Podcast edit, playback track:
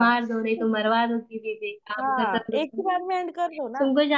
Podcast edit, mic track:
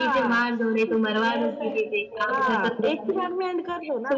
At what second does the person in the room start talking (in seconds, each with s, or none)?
1.1 s